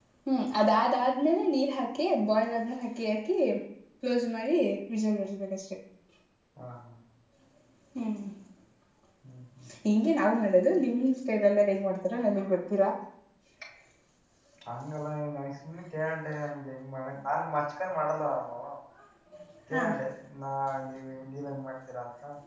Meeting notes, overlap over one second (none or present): none